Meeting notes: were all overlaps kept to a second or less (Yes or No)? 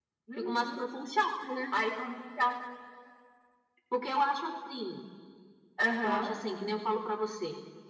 Yes